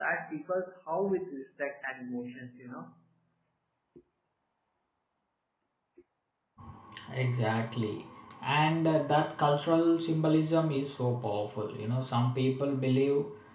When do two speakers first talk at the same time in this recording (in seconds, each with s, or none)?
none